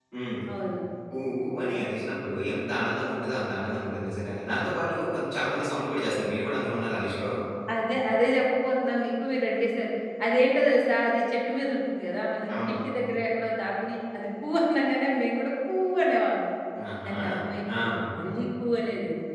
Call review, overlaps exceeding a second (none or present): none